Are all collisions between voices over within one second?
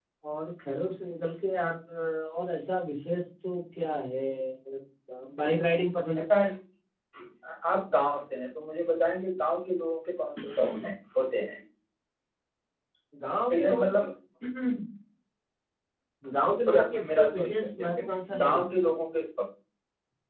No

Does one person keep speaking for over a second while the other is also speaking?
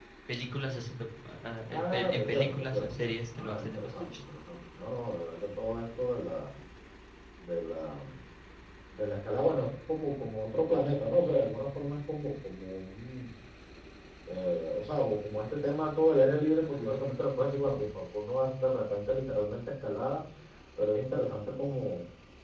Yes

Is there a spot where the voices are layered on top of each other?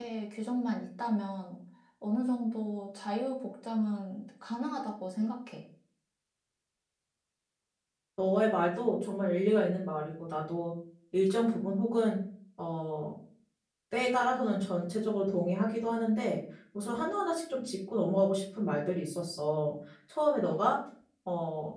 No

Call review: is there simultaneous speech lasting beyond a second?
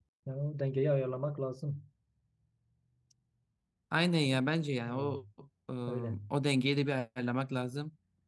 No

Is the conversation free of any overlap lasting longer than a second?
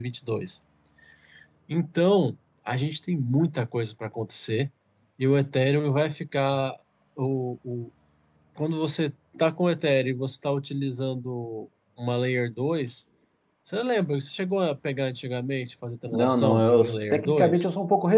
No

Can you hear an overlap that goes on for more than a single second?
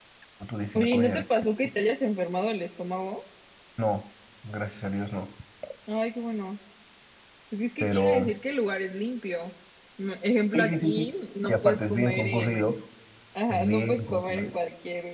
Yes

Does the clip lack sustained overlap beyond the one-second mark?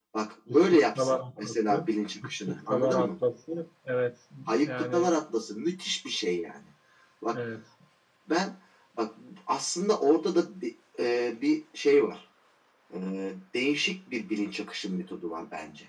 No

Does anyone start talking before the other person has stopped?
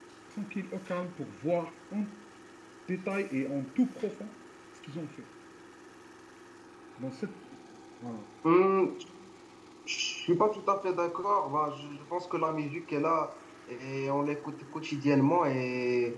No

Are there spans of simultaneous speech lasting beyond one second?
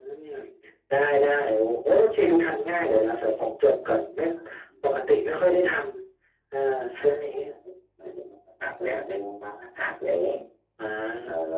No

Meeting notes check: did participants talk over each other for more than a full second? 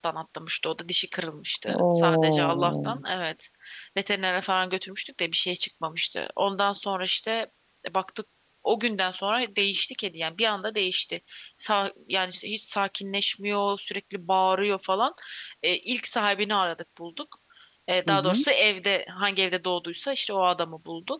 Yes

